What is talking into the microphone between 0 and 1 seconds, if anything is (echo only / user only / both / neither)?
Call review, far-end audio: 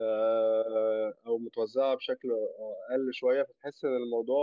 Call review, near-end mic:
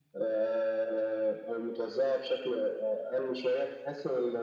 echo only